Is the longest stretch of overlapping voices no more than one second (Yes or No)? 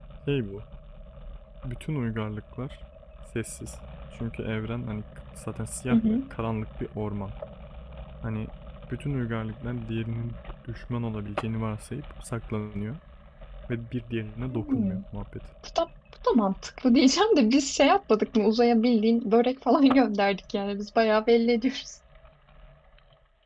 Yes